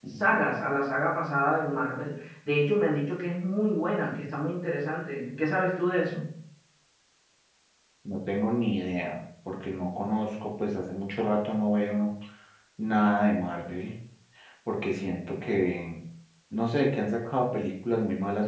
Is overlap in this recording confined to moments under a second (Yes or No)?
Yes